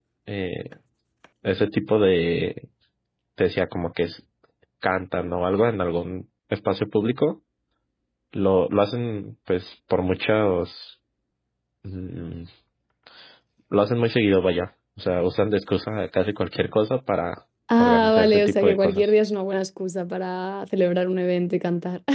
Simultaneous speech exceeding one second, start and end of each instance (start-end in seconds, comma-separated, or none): 17.8-19.1